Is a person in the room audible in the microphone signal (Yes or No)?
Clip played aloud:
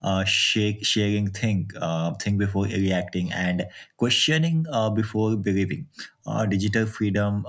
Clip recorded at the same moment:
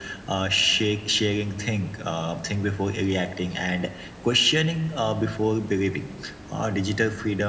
No